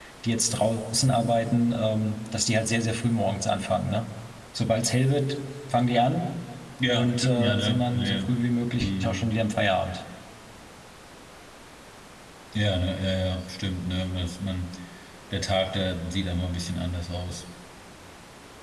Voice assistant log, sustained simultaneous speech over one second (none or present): present